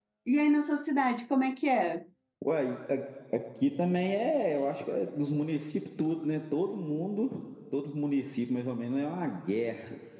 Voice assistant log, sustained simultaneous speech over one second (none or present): none